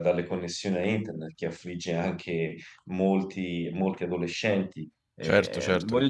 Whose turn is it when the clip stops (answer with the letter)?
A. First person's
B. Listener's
B